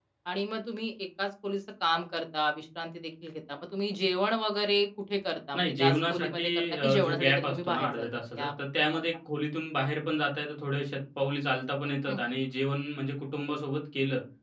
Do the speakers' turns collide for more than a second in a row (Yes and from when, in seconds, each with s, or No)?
Yes, from 5.5 s